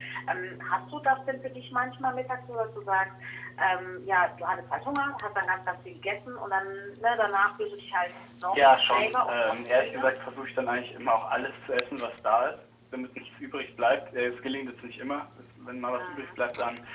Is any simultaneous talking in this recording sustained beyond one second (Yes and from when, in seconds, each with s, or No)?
Yes, from 8.5 s